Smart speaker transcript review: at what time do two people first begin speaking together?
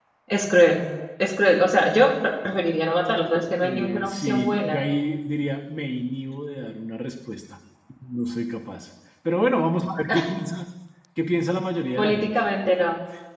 3.6 s

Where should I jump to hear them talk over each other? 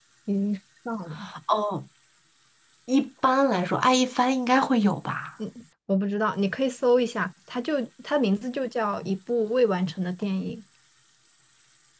none

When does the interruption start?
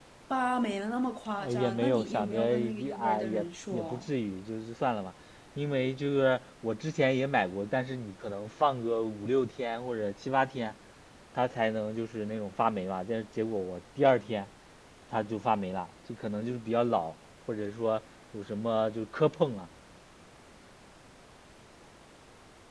1.4 s

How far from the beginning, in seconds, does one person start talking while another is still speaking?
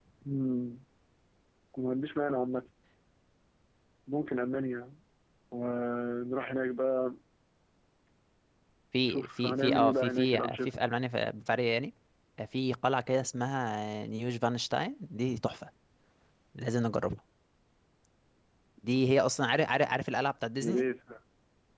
9.1 s

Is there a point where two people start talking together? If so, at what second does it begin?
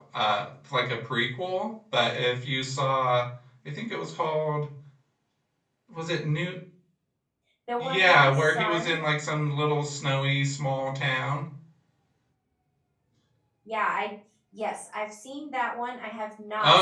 7.8 s

